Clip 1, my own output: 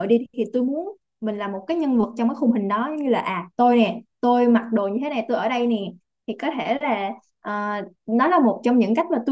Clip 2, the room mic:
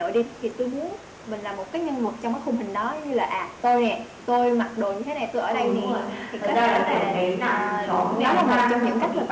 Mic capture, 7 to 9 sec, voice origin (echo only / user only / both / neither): both